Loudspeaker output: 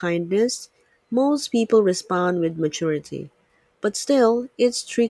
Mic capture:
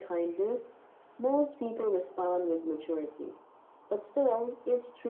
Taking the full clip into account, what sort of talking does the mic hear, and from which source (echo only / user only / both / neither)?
echo only